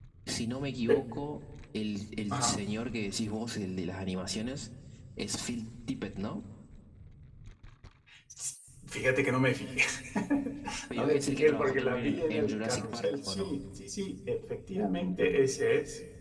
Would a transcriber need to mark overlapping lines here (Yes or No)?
Yes